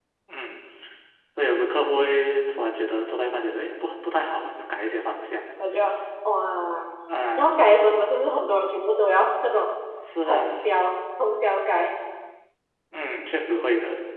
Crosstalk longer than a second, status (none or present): none